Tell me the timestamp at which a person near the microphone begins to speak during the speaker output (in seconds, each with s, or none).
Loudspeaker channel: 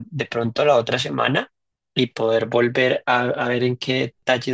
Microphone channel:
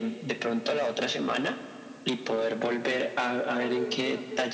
3.5 s